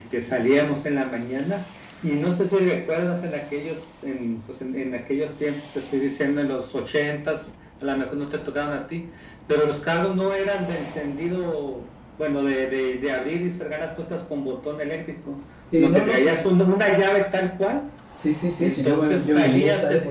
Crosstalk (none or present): present